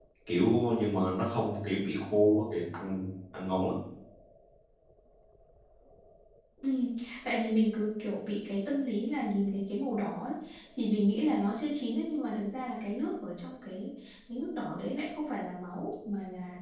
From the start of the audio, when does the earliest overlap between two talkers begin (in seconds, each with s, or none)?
none